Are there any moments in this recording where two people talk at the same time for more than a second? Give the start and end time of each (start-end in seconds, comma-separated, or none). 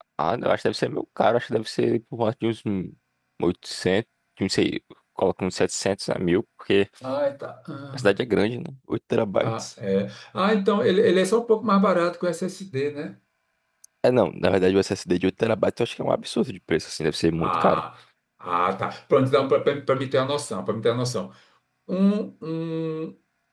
none